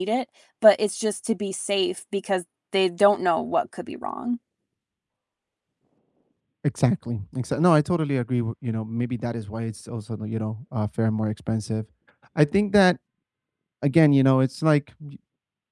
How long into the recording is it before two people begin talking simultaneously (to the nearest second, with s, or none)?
none